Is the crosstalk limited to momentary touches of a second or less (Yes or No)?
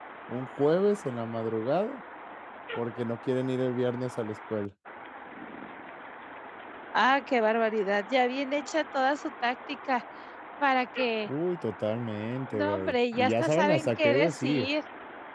No